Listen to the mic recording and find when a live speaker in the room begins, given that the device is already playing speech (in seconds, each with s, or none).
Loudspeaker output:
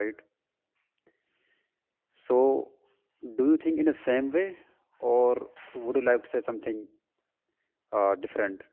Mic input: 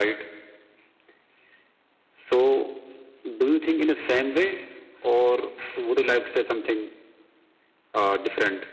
none